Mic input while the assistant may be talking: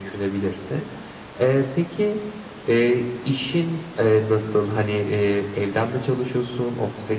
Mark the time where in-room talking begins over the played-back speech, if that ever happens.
none

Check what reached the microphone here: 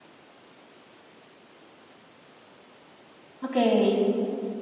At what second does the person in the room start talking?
3.4 s

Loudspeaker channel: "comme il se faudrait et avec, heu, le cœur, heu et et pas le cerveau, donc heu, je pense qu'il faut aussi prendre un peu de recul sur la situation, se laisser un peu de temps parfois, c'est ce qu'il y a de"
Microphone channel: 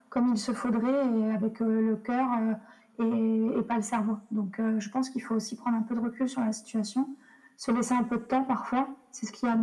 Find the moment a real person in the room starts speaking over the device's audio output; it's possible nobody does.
none

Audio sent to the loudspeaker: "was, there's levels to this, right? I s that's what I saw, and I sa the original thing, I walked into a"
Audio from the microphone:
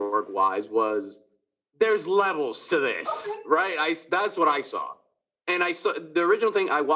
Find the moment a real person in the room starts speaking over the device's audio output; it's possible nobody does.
3.0 s

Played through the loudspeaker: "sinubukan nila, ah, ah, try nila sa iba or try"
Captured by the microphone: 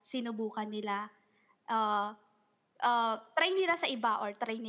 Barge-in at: none

